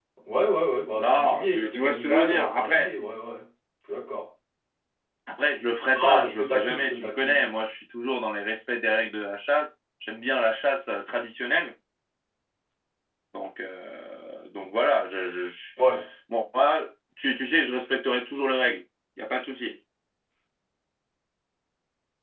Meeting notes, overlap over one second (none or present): present